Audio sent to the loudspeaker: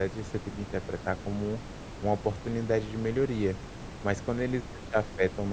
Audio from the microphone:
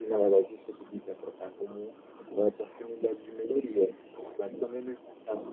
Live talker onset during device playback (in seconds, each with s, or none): none